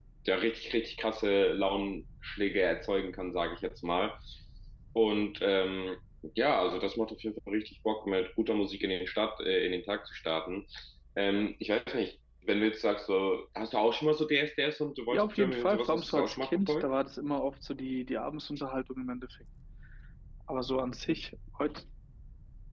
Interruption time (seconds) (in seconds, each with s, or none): 15.1 s